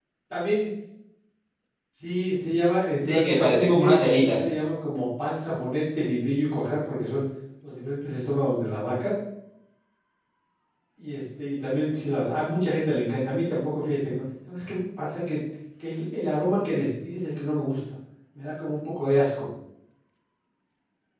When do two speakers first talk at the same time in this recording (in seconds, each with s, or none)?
3.0 s